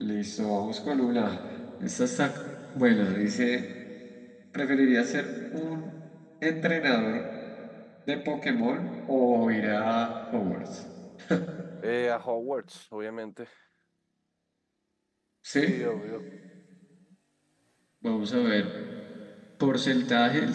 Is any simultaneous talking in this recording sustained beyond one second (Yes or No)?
No